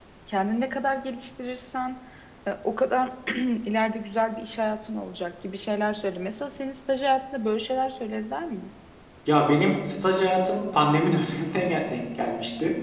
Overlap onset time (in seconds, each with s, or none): none